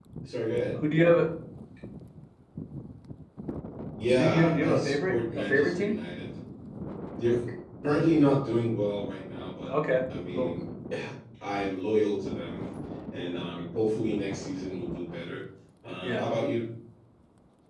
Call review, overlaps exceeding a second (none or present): present